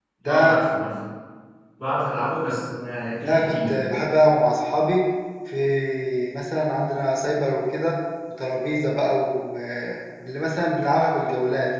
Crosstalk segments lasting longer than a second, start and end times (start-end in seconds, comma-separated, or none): none